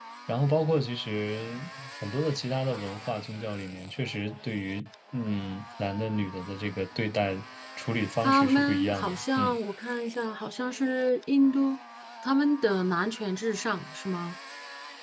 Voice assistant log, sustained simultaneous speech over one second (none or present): present